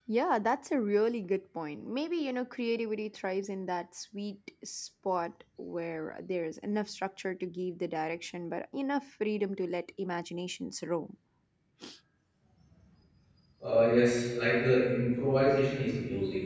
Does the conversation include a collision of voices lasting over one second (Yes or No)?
No